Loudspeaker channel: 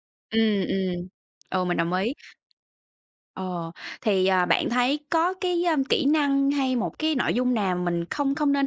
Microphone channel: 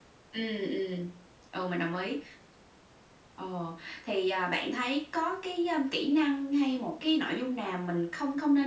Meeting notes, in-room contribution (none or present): none